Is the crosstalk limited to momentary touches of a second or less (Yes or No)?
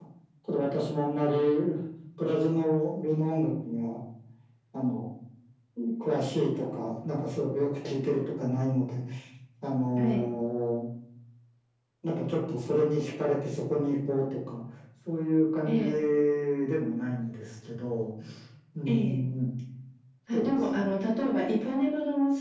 Yes